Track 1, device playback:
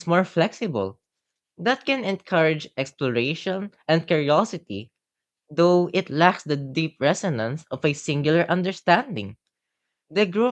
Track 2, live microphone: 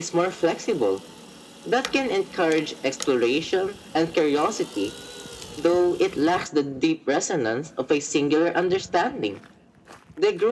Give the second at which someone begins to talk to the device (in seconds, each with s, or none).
none